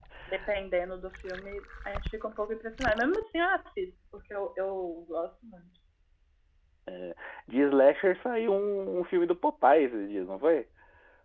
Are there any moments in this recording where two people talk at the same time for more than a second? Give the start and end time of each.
none

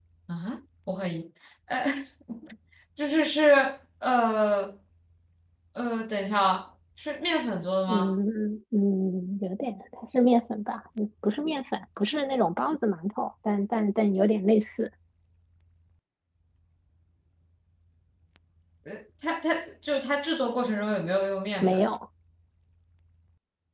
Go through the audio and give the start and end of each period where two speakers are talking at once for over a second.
none

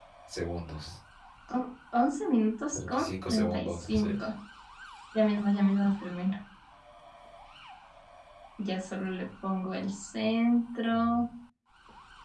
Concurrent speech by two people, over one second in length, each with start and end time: 2.7-4.1

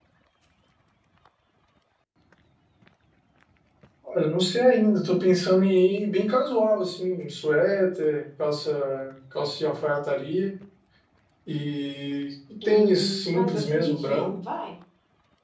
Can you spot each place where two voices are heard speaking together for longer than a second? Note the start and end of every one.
12.6-14.3

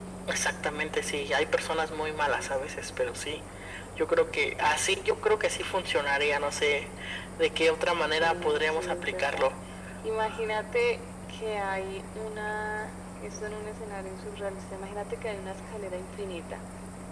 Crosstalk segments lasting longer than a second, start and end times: 8.2-9.5

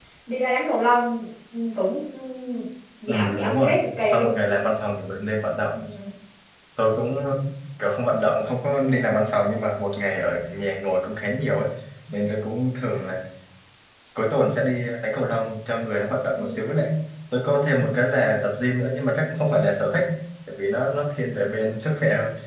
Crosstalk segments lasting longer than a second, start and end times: 3.1-4.3

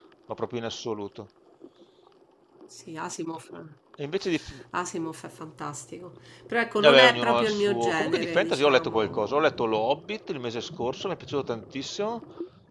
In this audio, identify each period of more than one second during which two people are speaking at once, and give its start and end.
6.8-9.5

